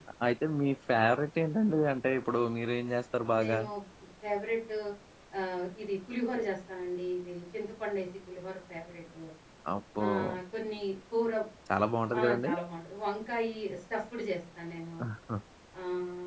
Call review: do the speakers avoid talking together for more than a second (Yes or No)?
Yes